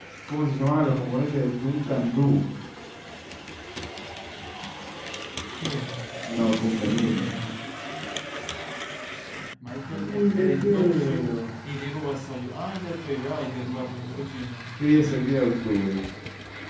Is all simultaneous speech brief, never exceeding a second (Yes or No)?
No